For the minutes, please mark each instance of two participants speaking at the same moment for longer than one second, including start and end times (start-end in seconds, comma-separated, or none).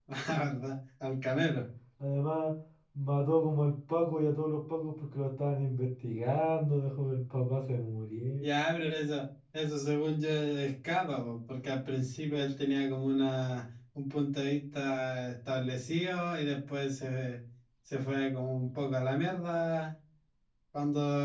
none